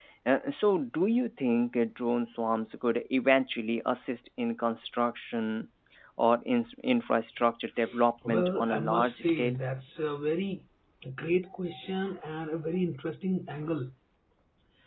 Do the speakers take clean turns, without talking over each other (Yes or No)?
No